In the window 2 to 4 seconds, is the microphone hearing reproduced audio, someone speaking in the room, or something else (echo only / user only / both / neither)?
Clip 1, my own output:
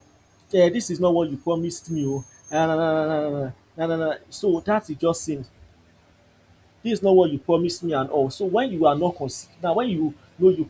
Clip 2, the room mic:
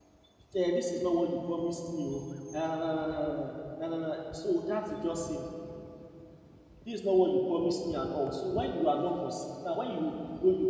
echo only